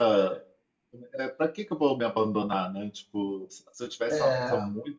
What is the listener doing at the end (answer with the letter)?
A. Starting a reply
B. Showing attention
B